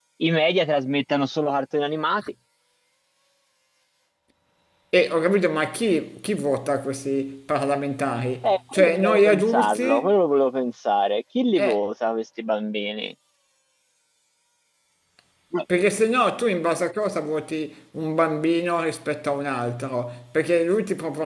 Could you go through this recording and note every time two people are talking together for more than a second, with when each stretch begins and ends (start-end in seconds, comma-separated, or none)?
8.4-10.1